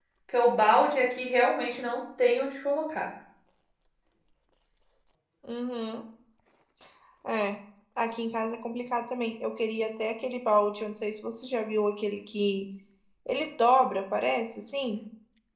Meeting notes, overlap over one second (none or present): none